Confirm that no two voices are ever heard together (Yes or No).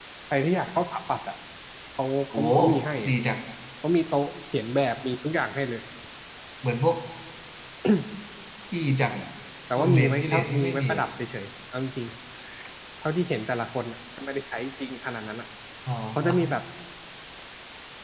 No